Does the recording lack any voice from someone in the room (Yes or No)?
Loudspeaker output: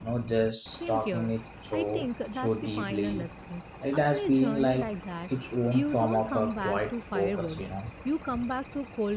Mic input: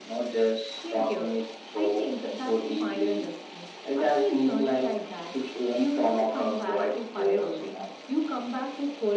Yes